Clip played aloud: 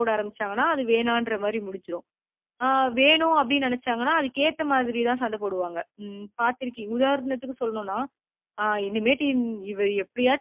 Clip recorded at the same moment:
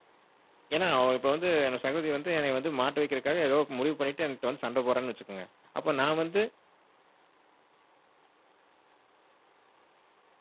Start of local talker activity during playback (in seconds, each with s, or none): 0.8 s